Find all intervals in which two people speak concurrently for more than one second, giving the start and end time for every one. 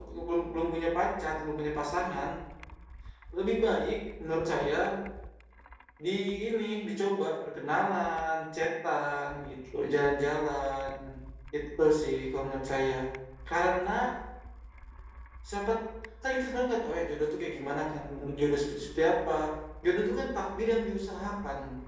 none

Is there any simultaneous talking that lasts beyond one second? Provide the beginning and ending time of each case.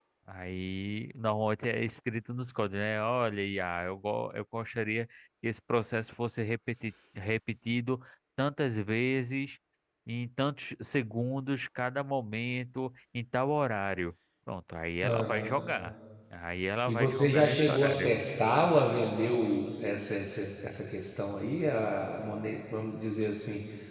16.9-18.1

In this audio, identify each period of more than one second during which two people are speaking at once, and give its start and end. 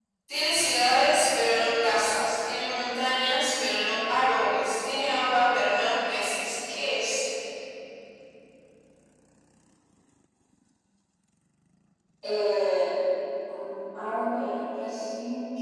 none

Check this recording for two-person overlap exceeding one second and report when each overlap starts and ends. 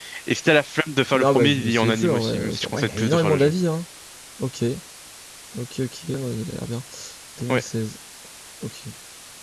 1.1-3.5

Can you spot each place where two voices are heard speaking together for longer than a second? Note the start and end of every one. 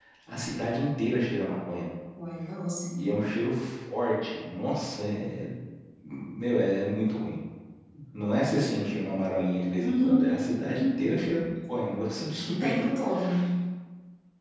none

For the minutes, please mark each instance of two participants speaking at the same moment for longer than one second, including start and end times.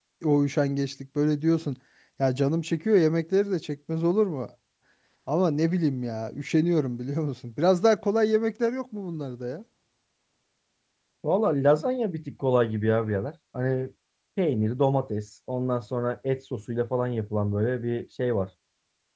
none

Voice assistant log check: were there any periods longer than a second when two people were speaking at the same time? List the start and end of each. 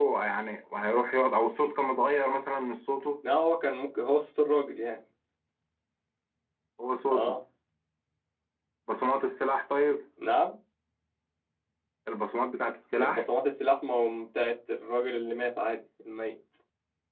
none

